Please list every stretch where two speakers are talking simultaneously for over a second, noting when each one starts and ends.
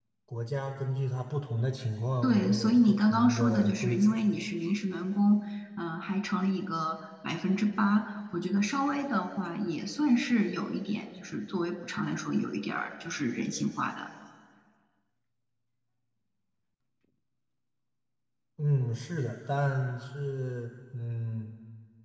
2.2-4.2

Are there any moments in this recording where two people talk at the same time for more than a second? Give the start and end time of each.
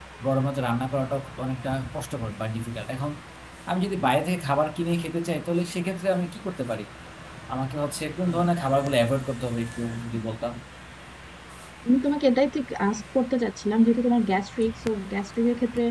none

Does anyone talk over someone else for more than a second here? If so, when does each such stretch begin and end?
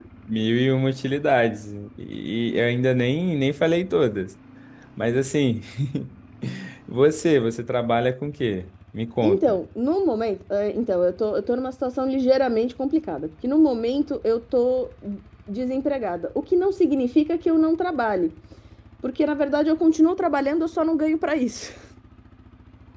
none

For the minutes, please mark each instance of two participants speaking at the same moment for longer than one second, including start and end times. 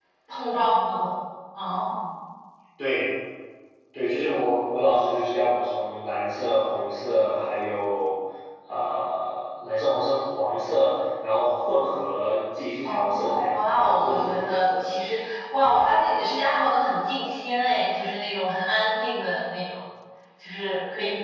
12.8-14.8

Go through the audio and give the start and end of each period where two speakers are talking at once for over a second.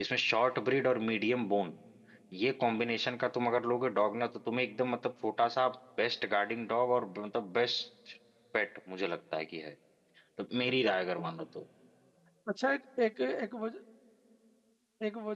none

